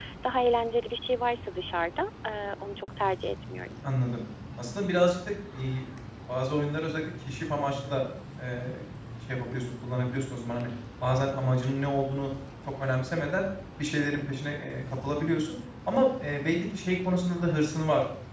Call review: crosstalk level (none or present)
none